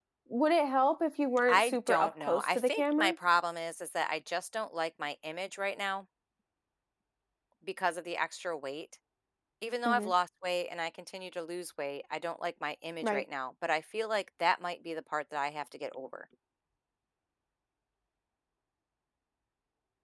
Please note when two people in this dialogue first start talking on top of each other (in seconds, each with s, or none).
1.5 s